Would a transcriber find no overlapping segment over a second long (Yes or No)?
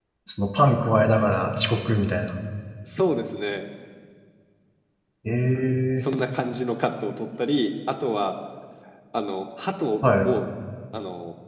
Yes